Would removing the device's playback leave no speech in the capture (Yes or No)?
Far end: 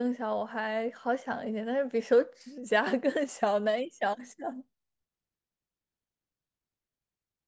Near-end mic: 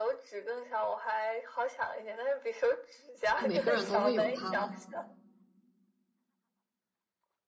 No